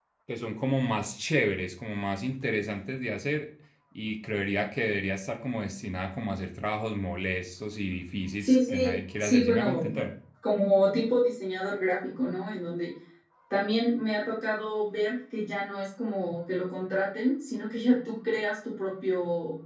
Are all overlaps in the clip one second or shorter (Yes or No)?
No